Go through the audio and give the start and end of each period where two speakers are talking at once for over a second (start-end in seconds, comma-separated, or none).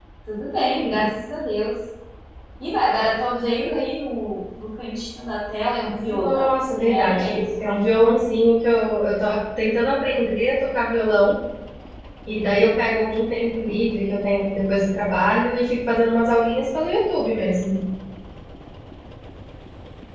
6.1-7.6